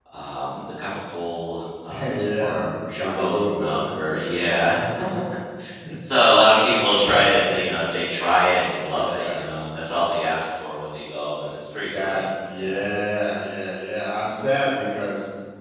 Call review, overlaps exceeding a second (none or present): present